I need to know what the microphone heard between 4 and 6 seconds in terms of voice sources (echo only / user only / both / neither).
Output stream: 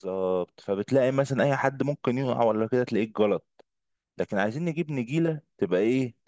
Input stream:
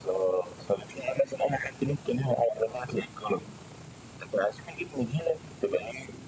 echo only